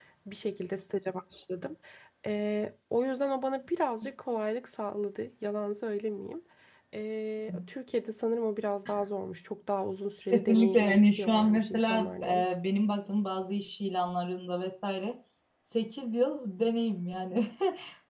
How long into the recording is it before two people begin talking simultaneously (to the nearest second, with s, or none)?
10 s